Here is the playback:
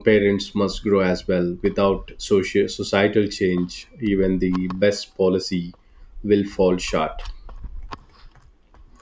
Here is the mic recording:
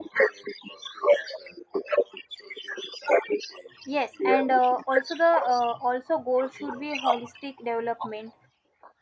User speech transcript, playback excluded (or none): Yes, and uh, also the uh, also goal should be holistic development,